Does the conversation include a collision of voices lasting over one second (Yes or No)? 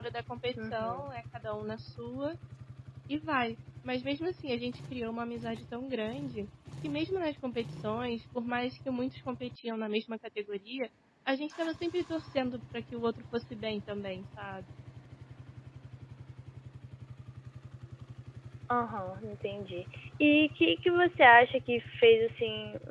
No